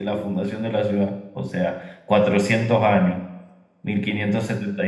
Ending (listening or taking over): listening